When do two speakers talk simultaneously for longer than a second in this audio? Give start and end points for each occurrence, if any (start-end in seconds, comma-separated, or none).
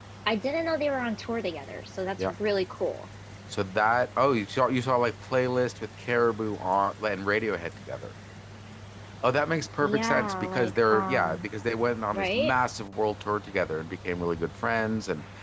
9.8-11.5